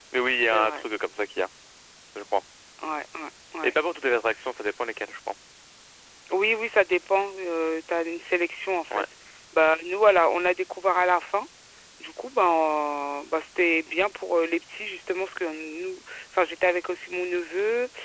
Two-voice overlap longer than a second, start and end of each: none

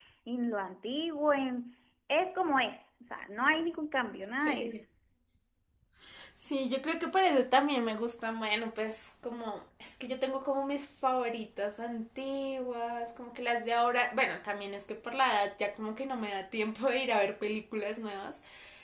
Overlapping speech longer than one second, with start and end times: none

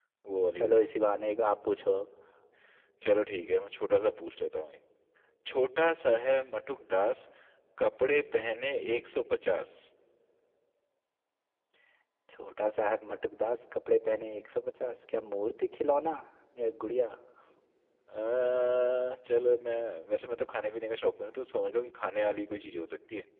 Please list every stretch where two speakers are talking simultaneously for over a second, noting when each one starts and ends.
none

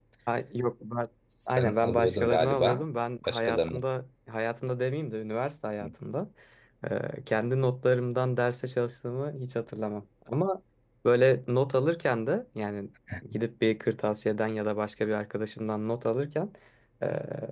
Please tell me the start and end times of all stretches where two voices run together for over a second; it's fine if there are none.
1.5-2.8

